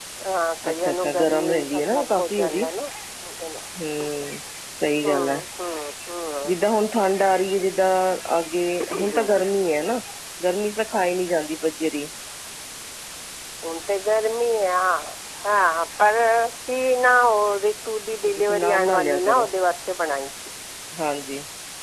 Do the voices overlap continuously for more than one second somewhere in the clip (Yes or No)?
Yes